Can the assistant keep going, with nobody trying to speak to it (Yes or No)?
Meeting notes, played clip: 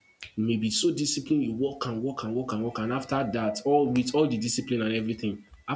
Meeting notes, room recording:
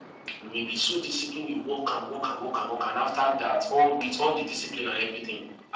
Yes